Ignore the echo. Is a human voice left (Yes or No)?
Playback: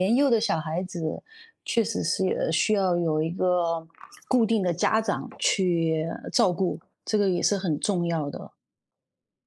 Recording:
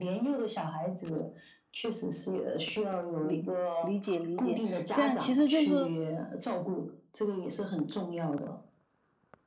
Yes